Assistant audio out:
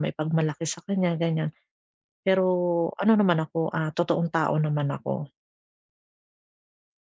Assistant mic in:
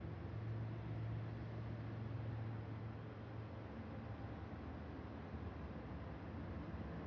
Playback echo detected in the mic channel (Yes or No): No